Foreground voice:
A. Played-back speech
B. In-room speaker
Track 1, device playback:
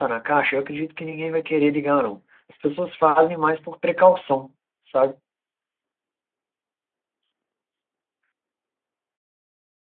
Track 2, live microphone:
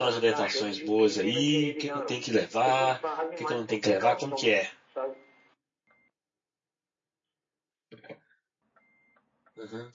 B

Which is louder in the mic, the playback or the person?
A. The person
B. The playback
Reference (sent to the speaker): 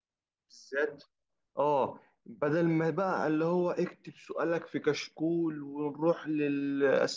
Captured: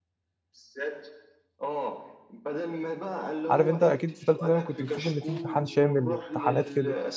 A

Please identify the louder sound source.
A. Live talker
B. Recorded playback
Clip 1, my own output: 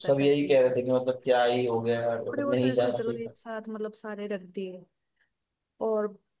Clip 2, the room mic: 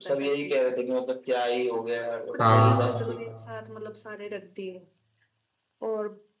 A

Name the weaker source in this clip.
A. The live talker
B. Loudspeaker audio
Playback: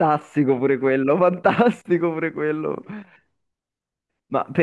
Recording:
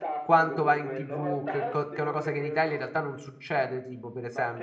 B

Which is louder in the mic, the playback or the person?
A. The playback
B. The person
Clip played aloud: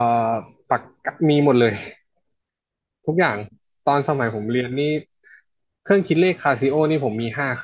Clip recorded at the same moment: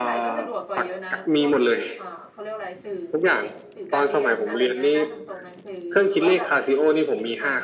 A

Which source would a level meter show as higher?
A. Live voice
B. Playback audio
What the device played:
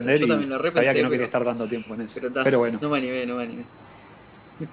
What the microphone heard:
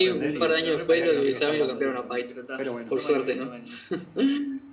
A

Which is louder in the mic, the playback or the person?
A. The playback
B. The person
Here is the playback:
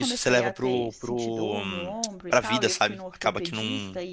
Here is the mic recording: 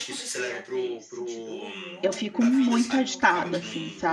B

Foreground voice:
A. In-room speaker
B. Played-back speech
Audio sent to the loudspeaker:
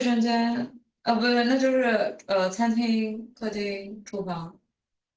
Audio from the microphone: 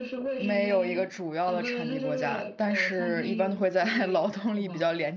A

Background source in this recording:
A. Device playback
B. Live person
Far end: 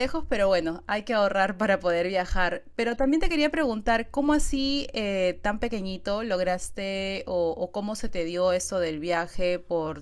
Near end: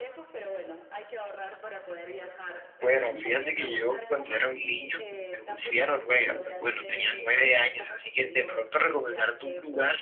A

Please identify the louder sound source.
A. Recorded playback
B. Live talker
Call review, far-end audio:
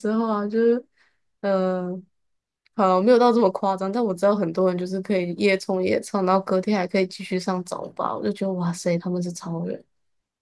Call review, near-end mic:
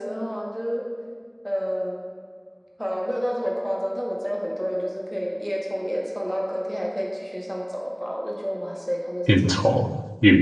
B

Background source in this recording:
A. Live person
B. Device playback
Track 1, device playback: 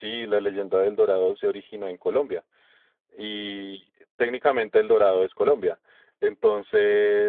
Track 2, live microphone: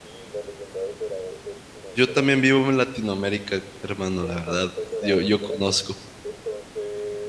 B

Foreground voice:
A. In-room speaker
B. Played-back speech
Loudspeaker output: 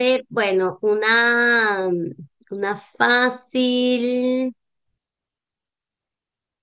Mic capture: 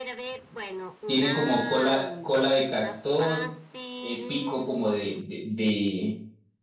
A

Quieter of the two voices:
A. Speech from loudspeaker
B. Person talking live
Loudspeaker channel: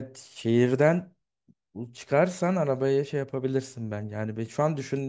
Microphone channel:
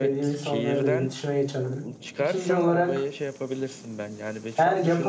A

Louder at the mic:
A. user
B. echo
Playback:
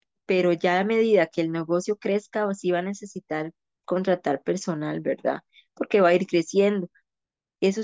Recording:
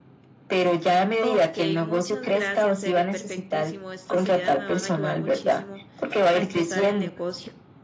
B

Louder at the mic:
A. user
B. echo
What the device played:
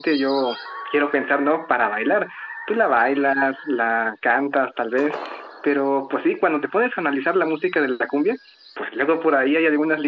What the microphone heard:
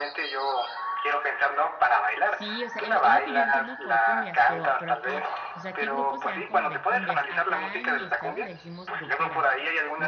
B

